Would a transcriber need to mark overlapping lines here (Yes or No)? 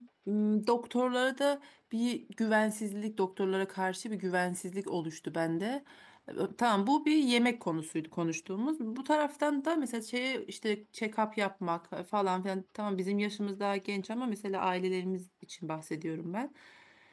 No